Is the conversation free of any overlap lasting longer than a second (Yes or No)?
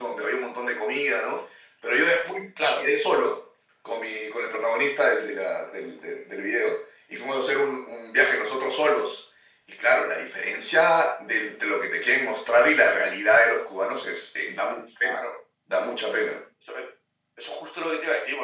Yes